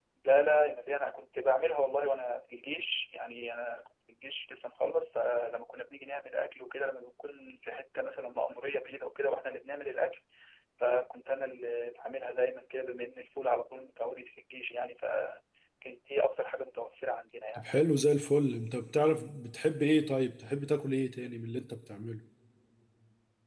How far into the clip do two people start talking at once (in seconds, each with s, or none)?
none